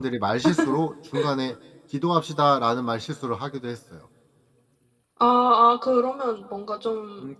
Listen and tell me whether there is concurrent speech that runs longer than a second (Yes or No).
No